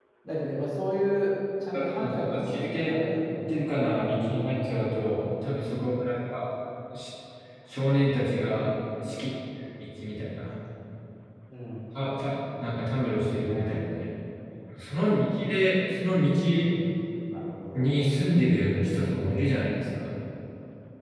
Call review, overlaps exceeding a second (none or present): present